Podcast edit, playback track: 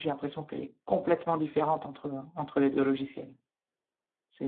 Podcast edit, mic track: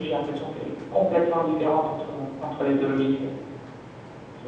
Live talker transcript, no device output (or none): none